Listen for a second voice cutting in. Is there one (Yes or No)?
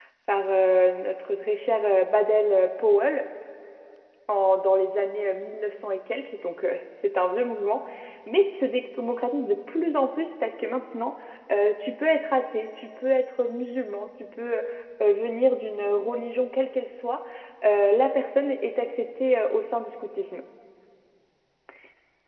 No